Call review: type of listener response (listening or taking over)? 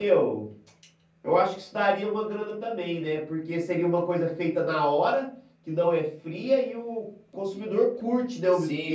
taking over